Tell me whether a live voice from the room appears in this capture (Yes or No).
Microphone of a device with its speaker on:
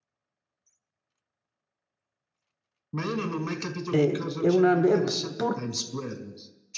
Yes